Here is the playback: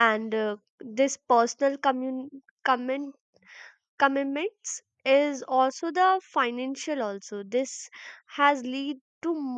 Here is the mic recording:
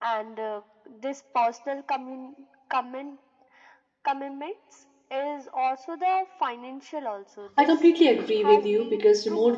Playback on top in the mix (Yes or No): No